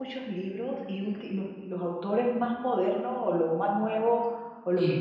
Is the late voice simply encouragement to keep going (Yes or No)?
Yes